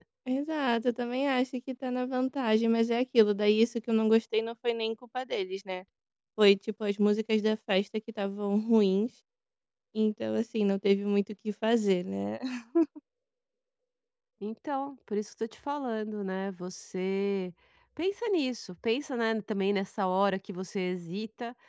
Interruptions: none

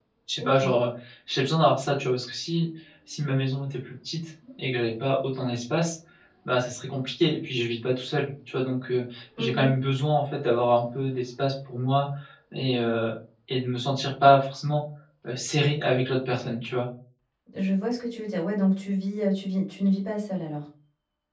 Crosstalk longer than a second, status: none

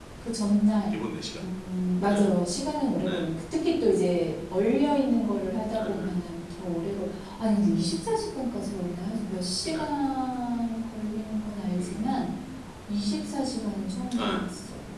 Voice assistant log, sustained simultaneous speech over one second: none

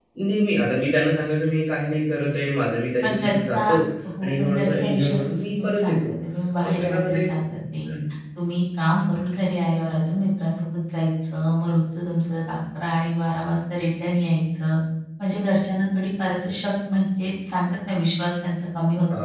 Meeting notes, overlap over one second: present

